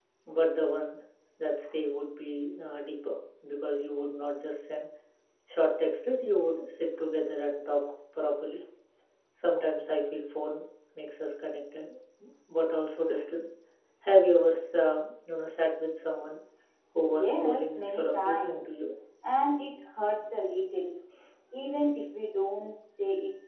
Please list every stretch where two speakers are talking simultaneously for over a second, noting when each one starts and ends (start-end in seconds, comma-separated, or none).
17.1-18.9